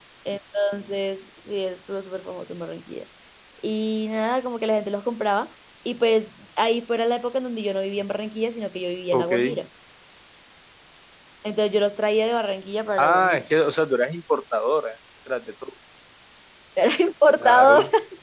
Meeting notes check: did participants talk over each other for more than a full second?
No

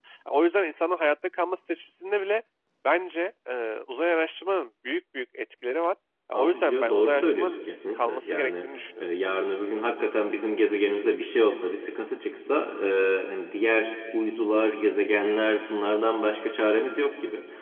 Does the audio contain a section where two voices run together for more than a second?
Yes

